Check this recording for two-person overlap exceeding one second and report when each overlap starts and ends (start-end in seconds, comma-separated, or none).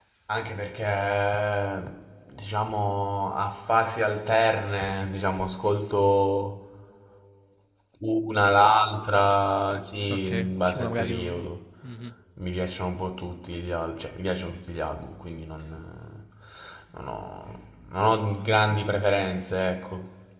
10.1-11.5